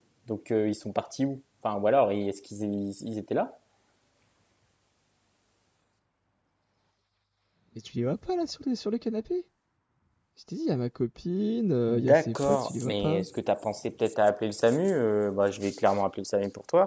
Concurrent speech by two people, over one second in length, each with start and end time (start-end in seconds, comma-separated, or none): 11.9-13.2